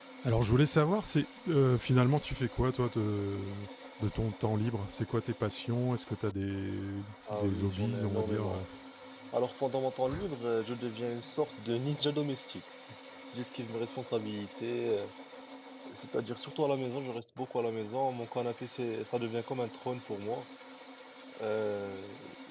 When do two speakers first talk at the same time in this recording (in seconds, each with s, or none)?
7.3 s